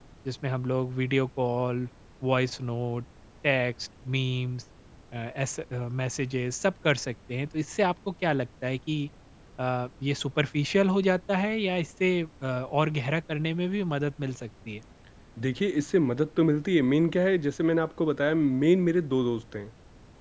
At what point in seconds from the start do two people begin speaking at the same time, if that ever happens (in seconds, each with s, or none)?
none